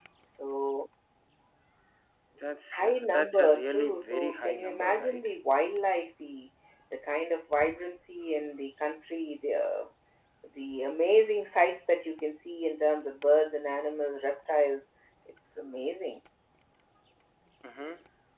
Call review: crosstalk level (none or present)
present